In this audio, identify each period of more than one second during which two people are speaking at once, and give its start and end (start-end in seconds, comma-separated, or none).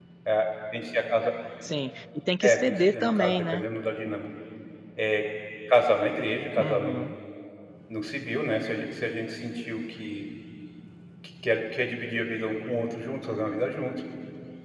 2.4-3.6